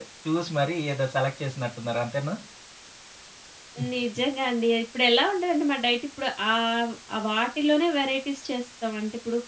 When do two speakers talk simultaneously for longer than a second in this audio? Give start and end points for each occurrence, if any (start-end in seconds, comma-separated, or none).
none